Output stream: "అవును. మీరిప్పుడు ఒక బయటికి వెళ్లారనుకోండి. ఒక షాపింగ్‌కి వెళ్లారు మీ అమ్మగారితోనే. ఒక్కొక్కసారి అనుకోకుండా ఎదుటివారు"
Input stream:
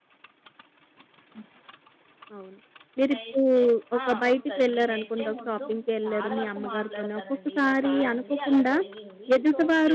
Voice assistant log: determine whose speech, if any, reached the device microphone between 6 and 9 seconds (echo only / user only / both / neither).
both